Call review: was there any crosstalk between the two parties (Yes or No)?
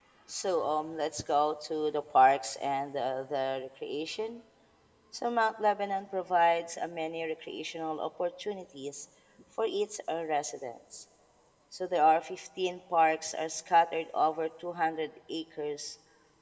No